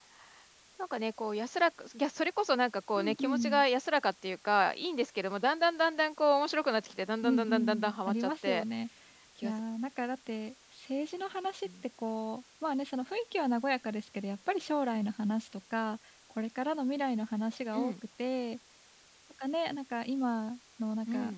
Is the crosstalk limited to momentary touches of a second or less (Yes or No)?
No